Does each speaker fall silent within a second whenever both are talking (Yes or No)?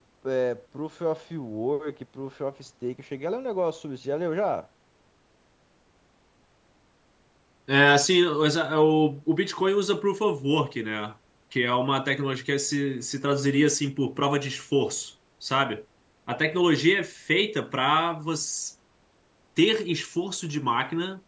Yes